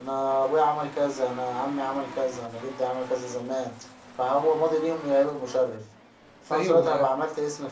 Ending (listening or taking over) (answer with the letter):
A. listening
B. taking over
A